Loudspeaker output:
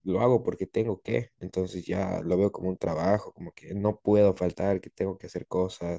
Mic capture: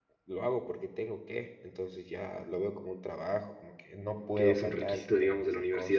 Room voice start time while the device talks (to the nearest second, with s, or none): 4 s